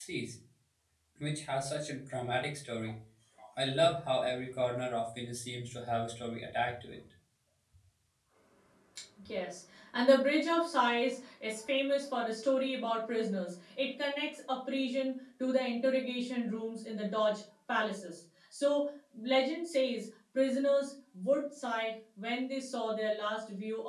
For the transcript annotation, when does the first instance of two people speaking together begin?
none

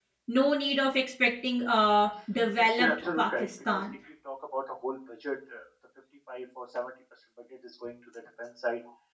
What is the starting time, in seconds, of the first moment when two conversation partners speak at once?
2.6 s

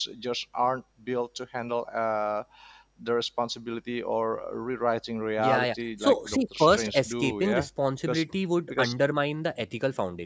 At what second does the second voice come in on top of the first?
5.4 s

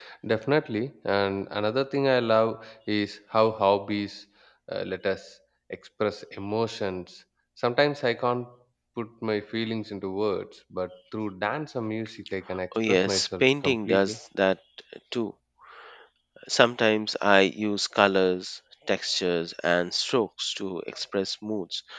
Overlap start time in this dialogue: 12.7 s

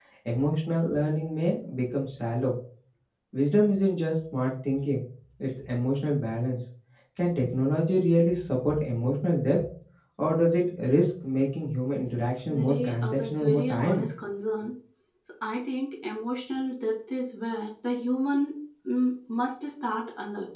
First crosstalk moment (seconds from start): 12.5 s

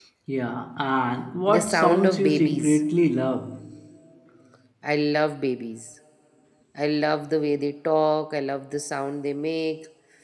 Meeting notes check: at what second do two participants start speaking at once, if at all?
1.5 s

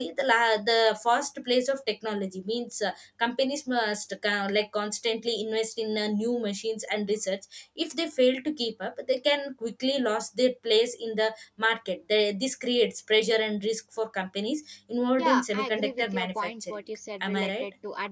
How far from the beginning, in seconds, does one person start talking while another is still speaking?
15.2 s

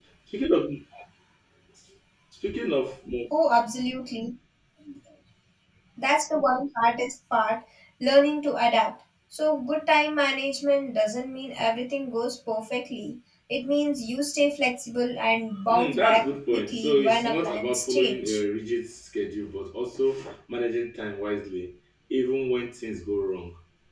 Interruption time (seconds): 15.7 s

